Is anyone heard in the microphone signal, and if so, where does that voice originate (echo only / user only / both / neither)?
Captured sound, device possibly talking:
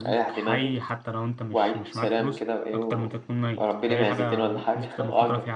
both